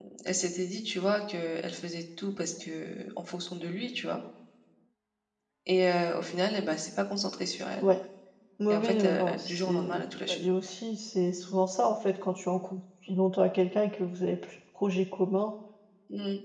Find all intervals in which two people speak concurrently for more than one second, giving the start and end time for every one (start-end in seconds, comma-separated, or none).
8.7-10.4